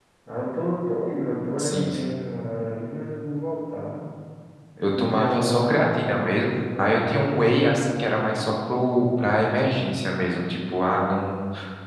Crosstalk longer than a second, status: present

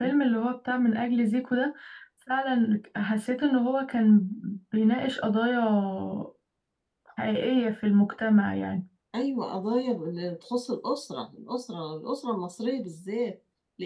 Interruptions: none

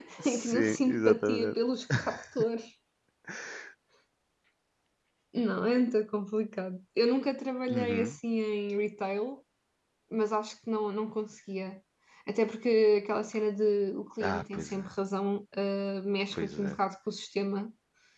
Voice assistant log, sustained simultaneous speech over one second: present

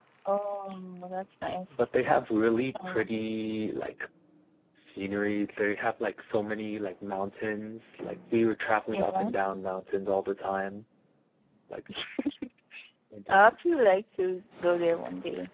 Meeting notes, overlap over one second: none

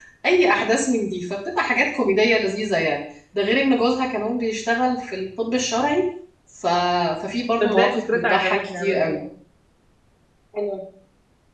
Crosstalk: present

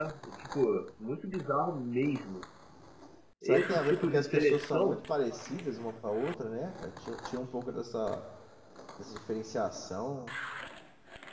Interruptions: present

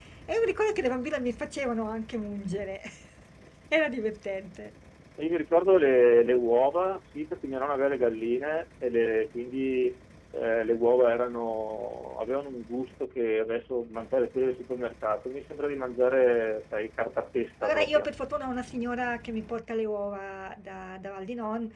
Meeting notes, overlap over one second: none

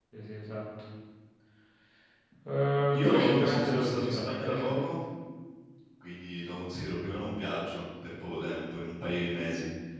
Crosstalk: present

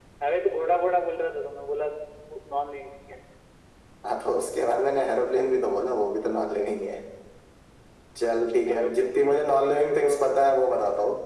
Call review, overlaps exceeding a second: present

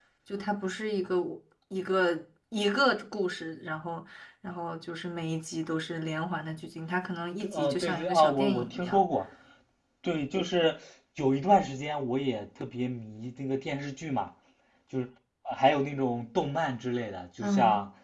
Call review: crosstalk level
present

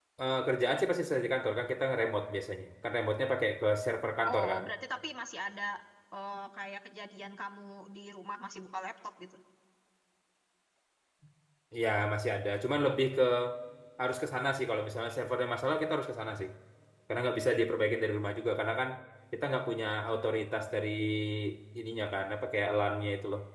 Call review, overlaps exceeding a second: none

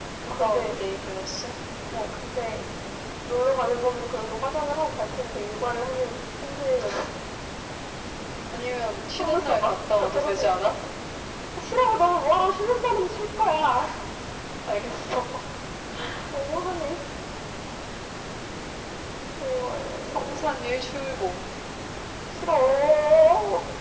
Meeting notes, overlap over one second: present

